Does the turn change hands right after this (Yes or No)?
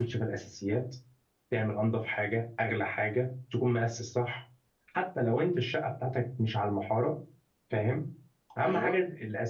No